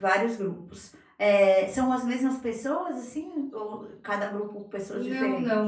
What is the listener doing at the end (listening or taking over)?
taking over